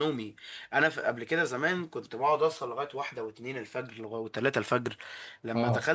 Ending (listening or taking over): listening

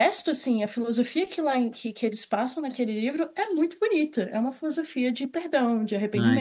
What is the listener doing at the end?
taking over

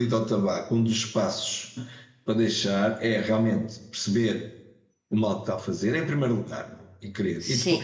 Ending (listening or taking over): listening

